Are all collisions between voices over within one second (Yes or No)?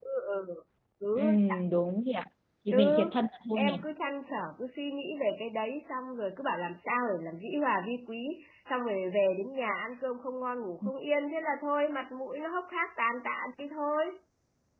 Yes